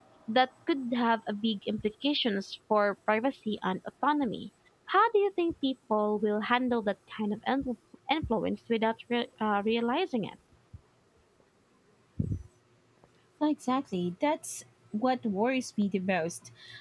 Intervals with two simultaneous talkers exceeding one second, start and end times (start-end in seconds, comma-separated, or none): none